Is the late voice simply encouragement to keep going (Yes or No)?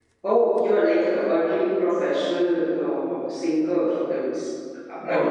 No